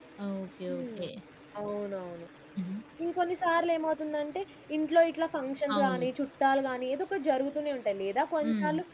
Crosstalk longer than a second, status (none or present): none